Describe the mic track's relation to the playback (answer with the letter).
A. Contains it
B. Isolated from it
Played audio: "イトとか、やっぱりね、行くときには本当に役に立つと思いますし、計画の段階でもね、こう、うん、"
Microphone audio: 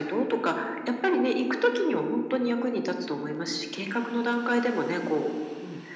A